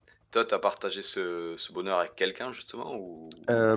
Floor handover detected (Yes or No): Yes